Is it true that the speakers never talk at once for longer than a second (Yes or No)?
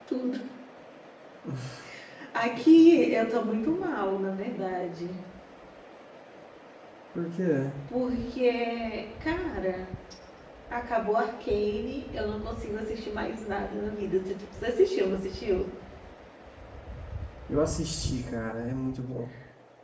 Yes